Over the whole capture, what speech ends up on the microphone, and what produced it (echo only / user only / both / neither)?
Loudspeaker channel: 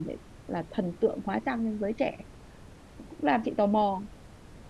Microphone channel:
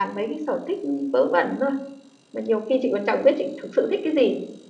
user only